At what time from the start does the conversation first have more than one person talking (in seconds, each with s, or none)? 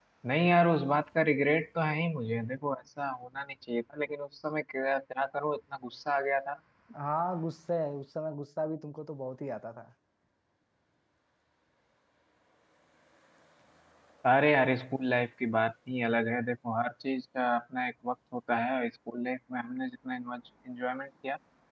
none